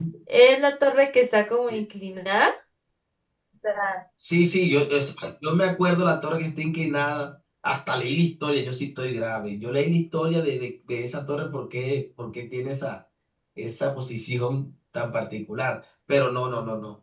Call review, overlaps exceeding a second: none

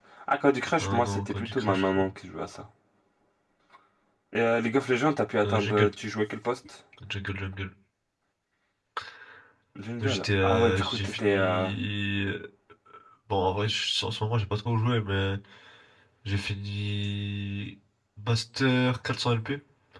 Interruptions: present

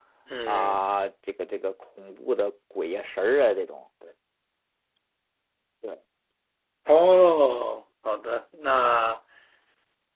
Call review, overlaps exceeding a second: none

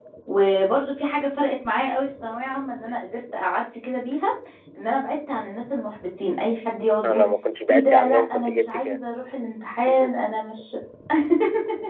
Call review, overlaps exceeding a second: present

